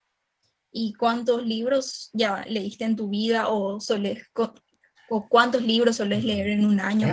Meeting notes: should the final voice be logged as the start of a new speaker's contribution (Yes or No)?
Yes